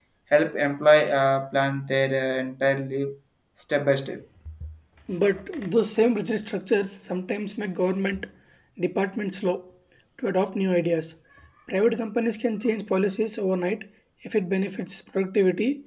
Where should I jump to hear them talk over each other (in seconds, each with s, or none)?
none